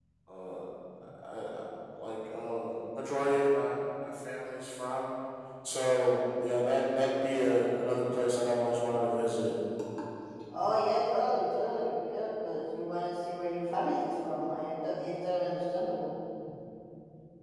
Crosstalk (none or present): none